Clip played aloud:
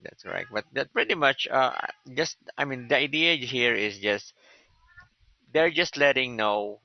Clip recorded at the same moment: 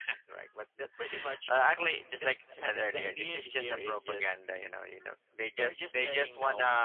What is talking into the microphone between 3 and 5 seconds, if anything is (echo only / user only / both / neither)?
both